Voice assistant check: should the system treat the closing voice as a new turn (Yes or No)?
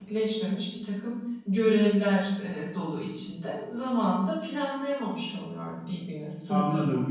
Yes